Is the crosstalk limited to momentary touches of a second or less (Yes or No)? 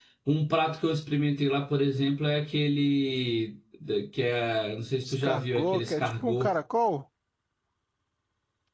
No